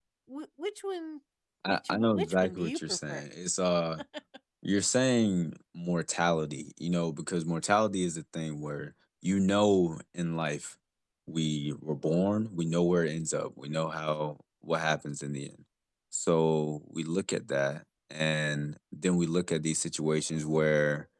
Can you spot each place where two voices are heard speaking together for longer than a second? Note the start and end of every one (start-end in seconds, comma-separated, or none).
1.7-3.2